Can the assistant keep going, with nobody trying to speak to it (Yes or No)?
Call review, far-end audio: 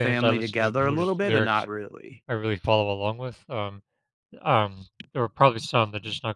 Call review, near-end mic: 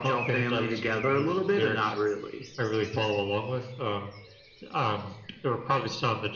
Yes